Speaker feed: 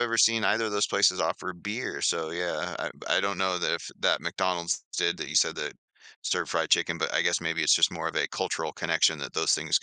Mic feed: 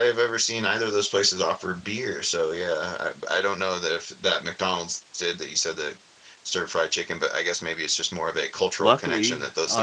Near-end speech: present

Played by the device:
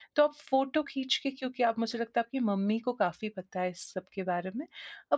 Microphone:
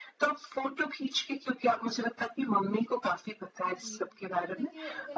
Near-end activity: present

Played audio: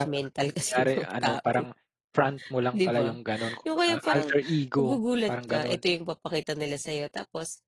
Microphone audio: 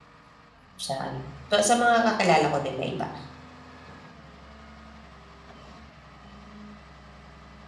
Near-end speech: present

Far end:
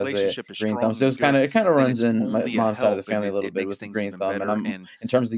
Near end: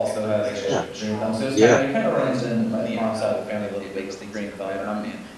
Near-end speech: present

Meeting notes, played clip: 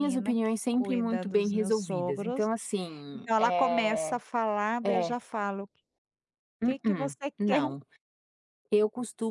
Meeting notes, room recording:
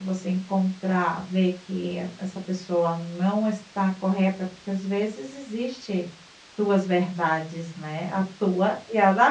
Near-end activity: present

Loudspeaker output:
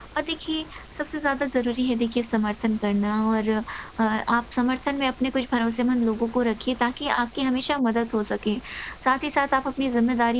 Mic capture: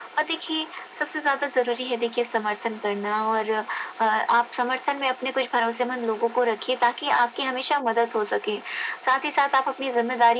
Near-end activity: none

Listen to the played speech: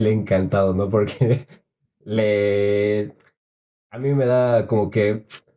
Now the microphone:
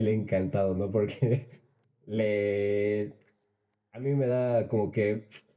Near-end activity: none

